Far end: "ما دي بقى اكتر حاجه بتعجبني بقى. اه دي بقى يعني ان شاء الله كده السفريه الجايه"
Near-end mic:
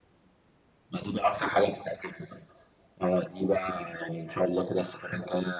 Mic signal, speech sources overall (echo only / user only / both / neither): echo only